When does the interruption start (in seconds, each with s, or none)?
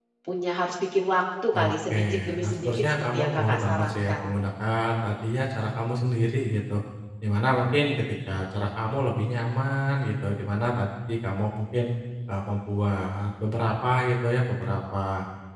1.5 s